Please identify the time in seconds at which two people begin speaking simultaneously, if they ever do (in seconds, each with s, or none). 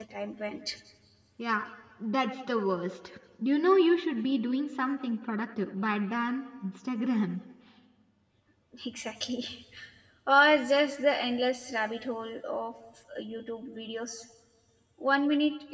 none